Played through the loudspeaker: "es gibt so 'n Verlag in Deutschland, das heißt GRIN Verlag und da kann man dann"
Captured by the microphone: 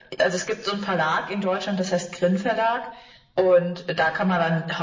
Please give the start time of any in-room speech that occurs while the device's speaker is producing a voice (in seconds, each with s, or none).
none